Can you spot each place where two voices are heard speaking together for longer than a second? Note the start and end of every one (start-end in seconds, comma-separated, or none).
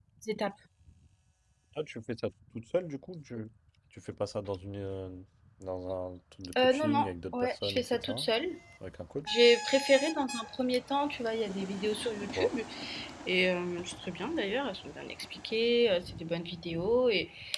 6.6-8.3